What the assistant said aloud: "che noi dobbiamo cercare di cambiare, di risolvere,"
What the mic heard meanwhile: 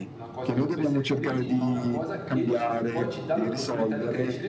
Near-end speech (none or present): present